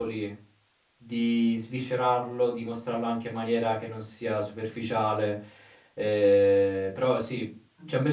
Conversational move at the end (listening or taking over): listening